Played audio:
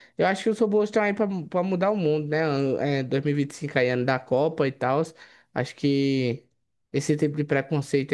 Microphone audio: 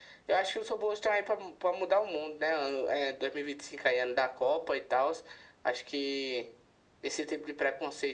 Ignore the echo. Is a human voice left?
No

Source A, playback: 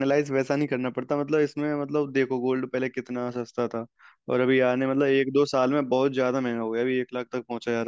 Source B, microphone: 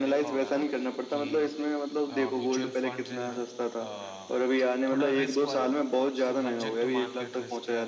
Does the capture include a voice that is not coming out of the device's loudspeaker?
Yes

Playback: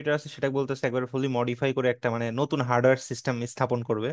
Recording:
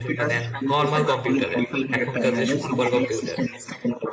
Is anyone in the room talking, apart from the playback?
Yes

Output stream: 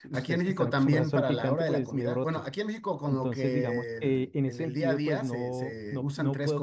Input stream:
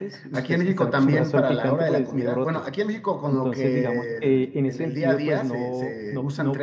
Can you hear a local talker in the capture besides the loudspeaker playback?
No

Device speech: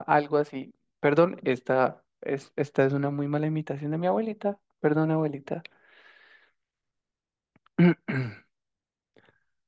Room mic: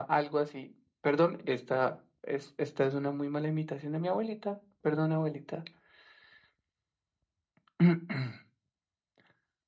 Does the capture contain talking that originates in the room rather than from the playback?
No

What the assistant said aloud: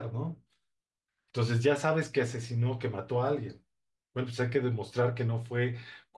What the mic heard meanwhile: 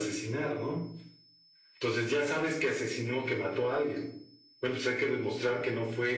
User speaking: No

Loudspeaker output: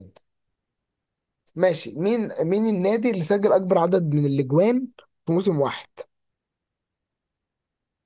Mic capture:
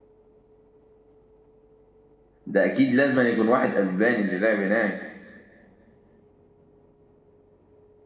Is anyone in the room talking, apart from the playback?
Yes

